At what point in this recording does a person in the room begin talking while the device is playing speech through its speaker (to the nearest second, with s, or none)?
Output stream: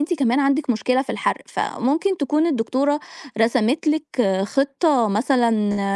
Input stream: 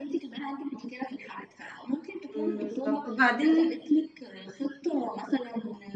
2 s